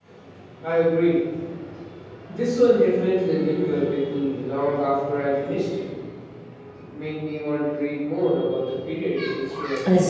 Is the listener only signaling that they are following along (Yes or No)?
No